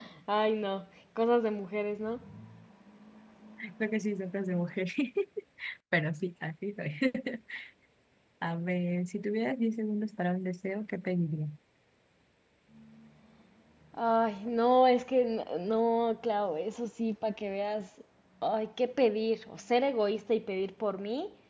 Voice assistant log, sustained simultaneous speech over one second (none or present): none